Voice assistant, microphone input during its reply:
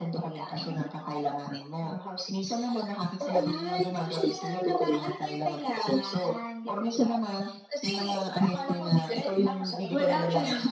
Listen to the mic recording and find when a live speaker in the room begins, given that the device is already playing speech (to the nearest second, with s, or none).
10 s